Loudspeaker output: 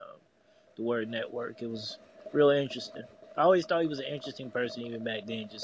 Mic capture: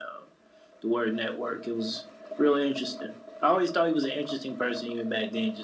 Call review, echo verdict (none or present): present